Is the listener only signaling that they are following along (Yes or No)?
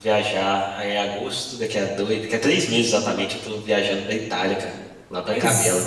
No